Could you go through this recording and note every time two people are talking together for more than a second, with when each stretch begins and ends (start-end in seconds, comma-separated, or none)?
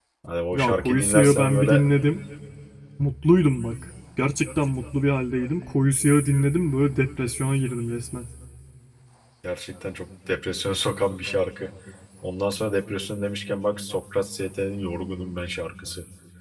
0.5-1.8